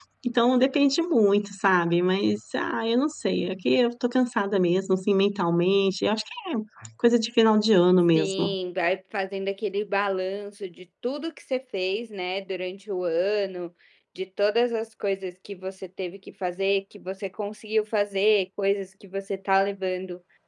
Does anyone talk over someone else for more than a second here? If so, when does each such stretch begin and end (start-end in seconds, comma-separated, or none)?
none